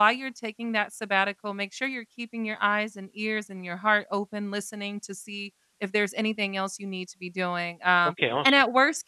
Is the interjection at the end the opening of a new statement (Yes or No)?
No